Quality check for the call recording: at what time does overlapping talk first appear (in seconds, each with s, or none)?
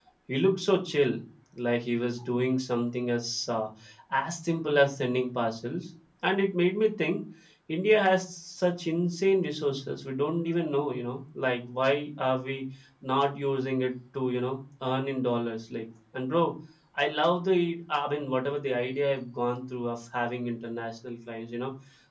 none